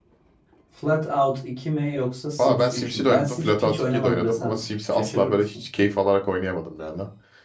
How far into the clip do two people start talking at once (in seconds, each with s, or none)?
2.4 s